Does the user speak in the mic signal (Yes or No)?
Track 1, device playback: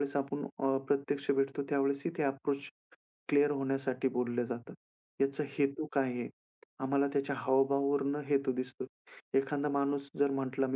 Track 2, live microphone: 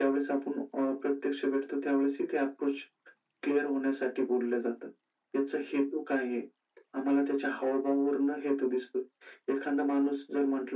No